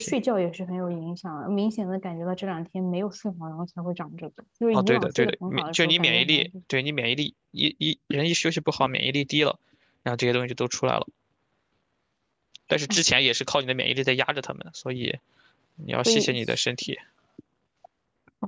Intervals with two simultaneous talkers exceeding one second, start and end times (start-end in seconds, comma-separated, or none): 4.7-6.5